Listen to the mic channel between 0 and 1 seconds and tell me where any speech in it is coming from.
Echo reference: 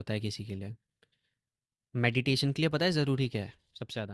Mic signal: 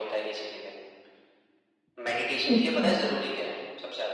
echo only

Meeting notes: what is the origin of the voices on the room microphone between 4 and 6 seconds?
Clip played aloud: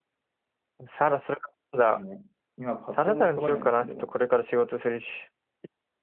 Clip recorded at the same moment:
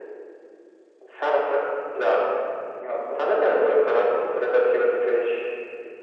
echo only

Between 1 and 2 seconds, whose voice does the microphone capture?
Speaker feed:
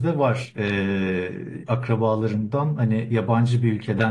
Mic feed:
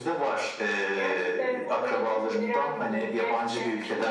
both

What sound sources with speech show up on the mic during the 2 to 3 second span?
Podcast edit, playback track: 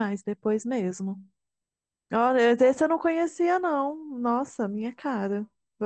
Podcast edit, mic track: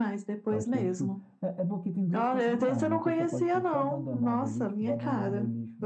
both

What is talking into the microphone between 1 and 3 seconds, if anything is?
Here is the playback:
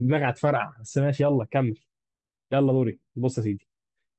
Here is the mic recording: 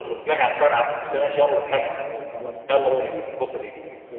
both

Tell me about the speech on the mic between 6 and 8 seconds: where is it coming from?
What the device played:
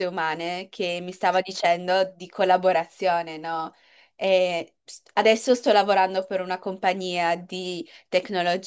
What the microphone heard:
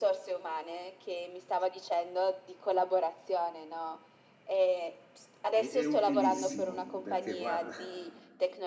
both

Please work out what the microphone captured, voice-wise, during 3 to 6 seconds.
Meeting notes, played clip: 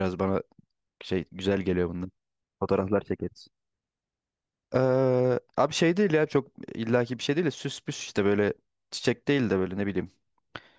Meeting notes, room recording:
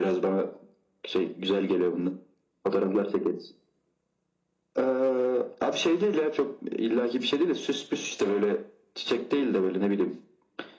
echo only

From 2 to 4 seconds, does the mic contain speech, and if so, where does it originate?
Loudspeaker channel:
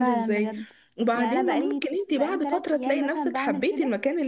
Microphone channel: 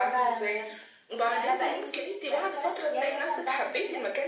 echo only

